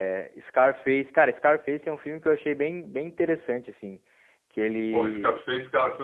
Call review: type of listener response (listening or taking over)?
taking over